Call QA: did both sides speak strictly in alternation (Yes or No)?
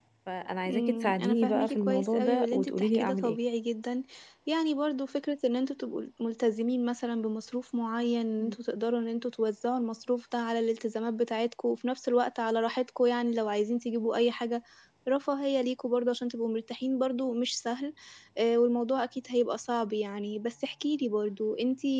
No